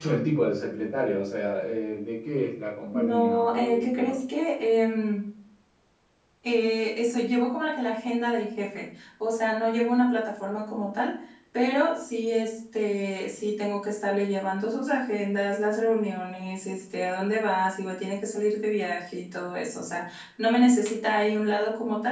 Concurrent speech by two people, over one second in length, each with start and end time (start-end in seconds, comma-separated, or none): 2.9-4.1